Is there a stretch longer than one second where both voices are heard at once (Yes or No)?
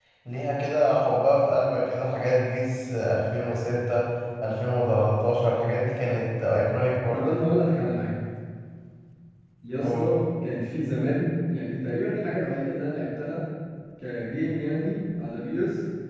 No